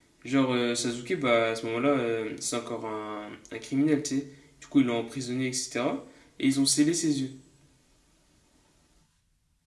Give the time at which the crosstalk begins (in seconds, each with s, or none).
none